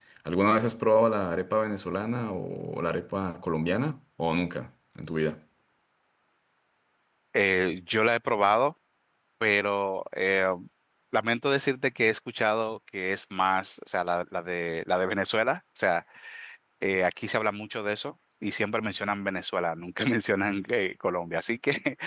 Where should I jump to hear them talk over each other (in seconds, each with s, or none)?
none